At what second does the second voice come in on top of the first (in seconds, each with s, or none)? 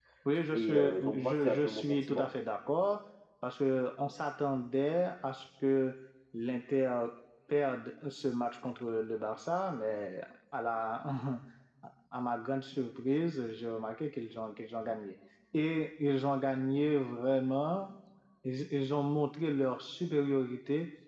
0.5 s